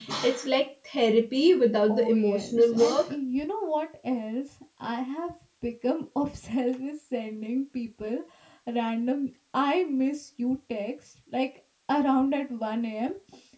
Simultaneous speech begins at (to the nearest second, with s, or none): 2 s